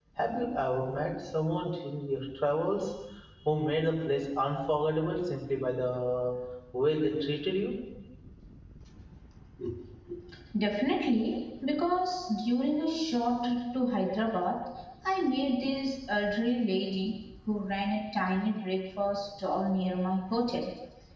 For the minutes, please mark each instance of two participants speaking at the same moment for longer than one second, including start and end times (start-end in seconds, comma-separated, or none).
none